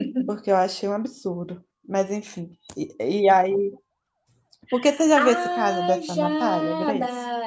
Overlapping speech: Yes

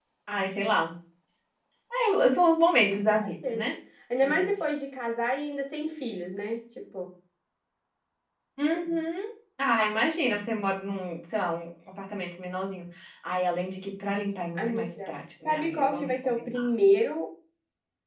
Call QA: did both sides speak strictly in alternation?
No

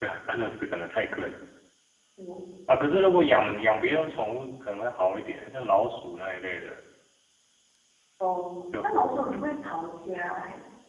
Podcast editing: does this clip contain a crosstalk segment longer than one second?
No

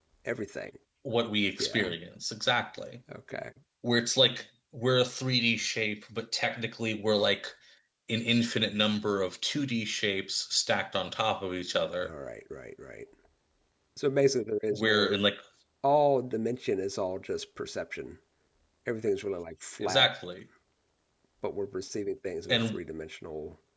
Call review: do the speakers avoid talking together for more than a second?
Yes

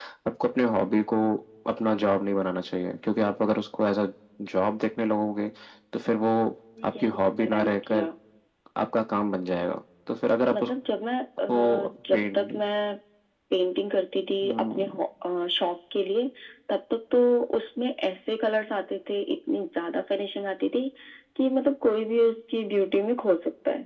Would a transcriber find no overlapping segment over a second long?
No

